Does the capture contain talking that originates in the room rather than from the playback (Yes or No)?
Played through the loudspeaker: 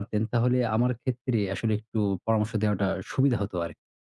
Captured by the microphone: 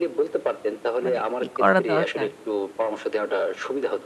Yes